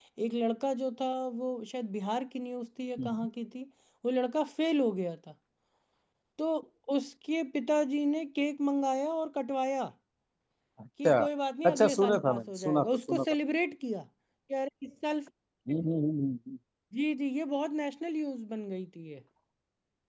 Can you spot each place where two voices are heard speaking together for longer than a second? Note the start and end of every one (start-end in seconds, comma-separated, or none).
11.6-13.3